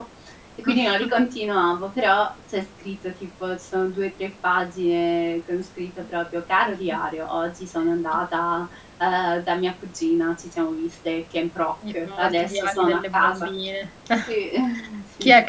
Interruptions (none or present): present